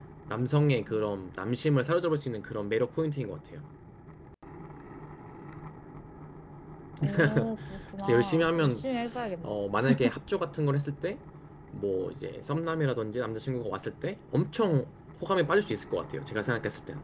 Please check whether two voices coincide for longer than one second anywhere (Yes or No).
Yes